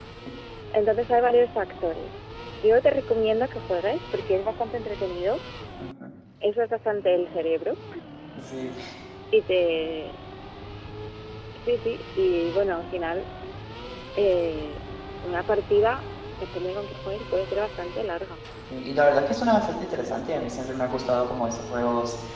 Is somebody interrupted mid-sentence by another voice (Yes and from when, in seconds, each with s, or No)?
No